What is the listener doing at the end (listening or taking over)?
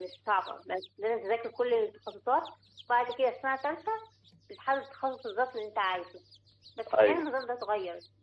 listening